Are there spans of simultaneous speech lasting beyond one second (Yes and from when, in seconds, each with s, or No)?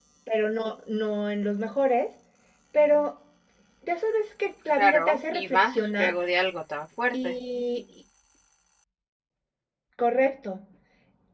Yes, from 4.8 s